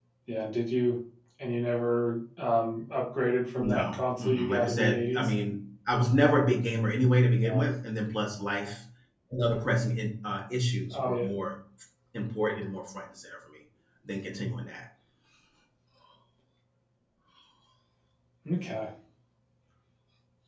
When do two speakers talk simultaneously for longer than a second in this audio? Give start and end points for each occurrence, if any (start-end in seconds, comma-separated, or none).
3.6-5.3